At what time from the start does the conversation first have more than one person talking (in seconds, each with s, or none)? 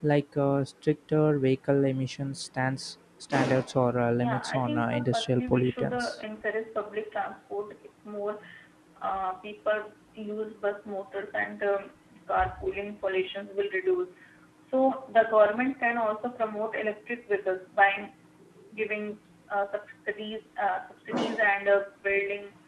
4.2 s